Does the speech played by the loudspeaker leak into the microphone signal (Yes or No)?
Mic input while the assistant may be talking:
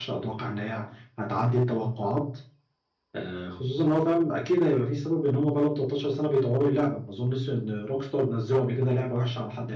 No